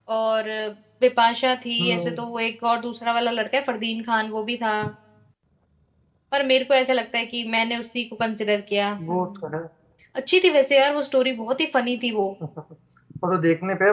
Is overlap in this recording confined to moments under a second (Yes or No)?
Yes